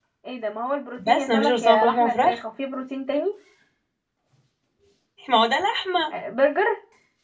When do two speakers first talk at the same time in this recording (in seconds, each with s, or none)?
1.0 s